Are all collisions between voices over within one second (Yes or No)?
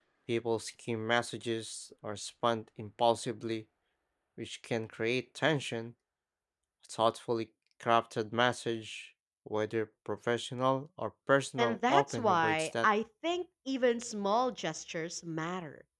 No